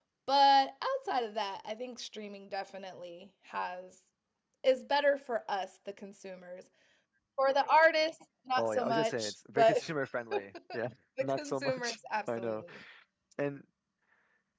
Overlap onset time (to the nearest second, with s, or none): 9 s